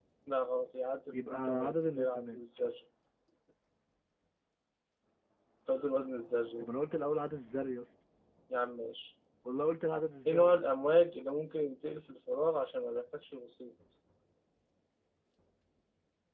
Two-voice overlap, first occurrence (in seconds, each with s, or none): 1.1 s